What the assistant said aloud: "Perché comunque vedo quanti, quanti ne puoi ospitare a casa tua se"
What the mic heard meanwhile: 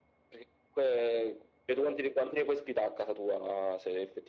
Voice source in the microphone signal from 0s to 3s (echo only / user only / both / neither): echo only